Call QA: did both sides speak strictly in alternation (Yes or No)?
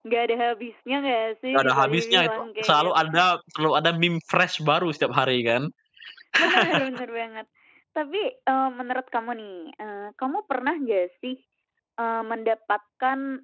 No